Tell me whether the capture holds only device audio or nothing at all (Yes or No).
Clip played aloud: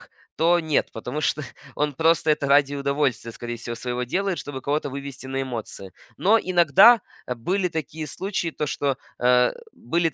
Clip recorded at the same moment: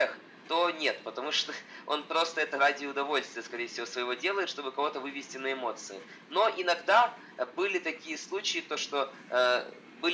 Yes